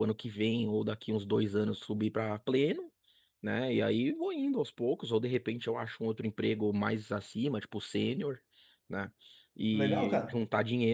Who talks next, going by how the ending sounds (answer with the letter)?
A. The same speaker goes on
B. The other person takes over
A